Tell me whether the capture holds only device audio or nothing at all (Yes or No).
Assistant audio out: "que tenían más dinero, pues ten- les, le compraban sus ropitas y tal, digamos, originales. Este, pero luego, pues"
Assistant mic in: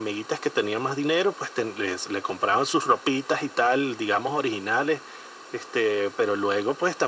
Yes